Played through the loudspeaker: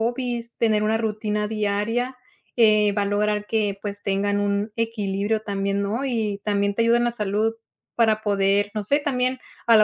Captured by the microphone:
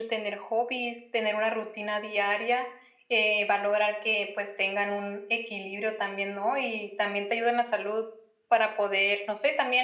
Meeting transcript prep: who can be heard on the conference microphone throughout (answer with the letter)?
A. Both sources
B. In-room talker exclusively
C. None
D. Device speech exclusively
D